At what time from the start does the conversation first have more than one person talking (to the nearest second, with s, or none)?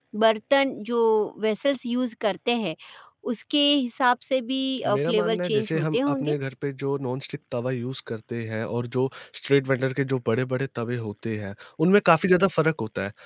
5 s